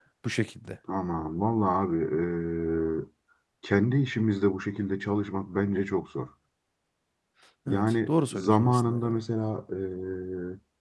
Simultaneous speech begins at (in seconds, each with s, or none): 7.7 s